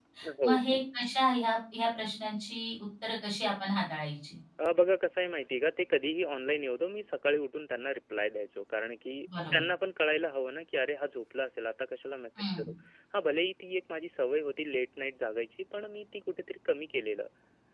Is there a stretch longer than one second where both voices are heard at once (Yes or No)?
No